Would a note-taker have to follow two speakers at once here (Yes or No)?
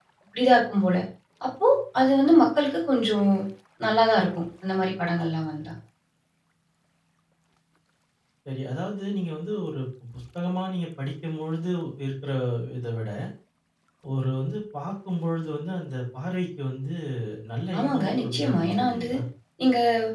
Yes